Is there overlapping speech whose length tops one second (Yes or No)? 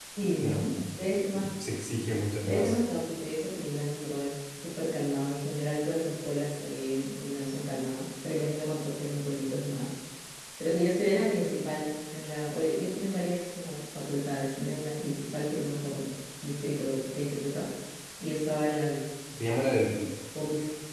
No